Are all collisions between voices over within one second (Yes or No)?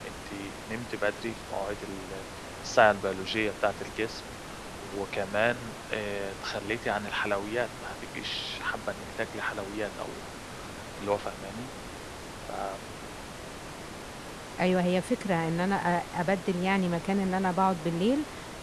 Yes